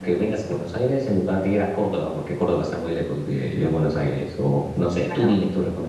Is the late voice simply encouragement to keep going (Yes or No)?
No